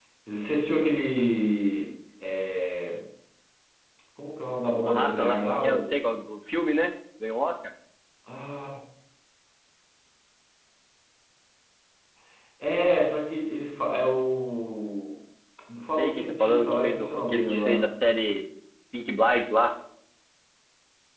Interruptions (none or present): present